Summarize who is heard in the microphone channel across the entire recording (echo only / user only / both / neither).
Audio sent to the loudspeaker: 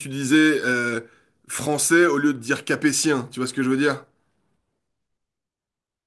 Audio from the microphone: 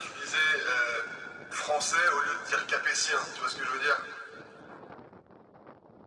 echo only